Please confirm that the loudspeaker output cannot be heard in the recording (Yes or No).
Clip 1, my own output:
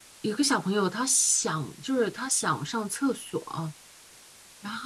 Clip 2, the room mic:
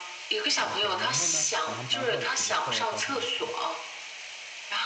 No